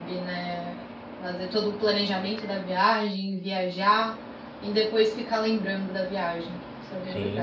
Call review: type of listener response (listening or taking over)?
taking over